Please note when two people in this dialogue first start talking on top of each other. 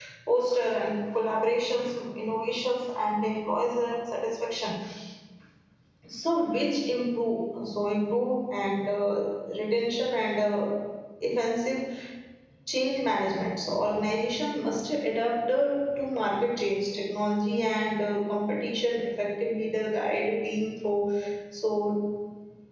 none

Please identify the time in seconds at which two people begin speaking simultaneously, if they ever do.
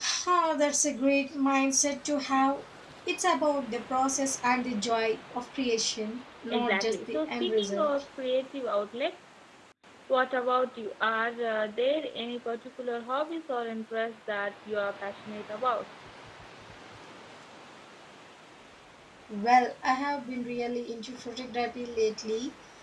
7 s

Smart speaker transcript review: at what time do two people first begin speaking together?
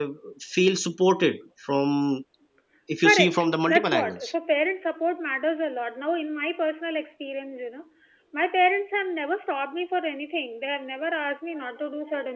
3 s

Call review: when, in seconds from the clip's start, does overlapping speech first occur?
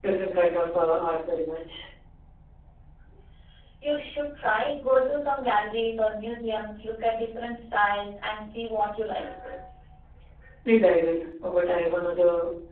none

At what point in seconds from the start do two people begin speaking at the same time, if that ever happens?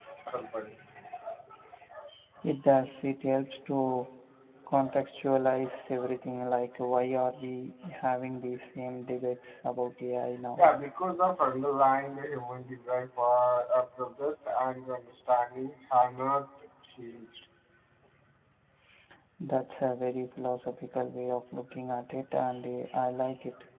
none

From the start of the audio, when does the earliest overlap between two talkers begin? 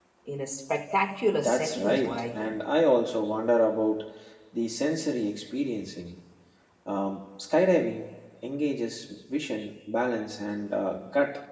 1 s

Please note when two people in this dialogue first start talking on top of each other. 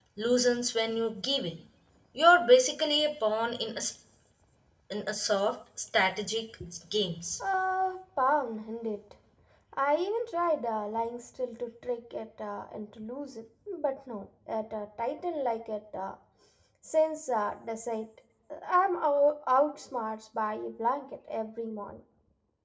none

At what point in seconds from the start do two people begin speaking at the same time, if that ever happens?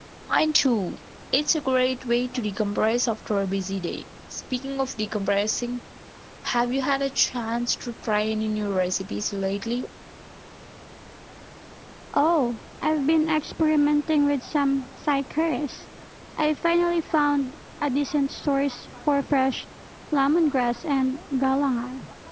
none

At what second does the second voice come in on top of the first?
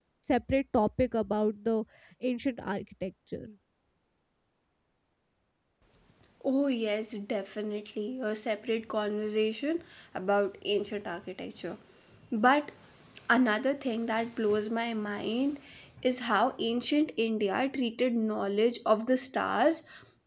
none

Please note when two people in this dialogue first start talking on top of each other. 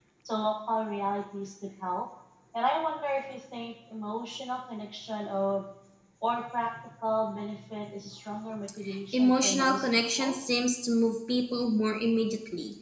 9 s

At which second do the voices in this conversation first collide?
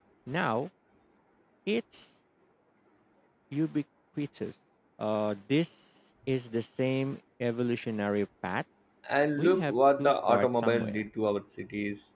9 s

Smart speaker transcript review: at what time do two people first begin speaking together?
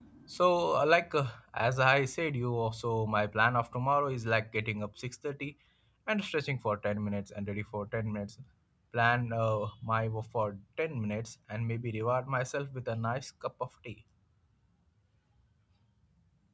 none

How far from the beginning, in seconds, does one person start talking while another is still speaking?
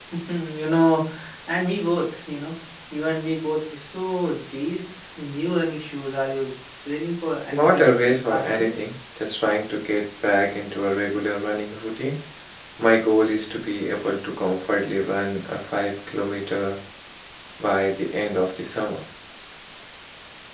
8 s

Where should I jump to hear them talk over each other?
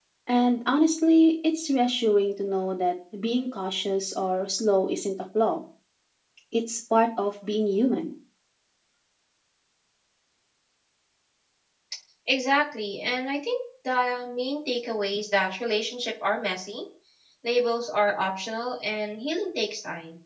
none

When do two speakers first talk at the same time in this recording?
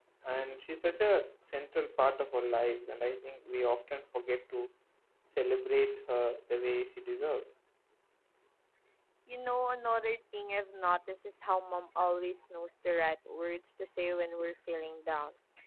none

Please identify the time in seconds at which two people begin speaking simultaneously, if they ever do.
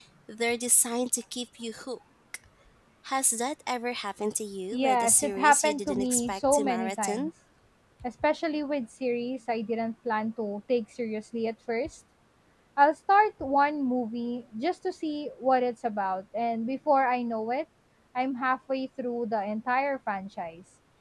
5 s

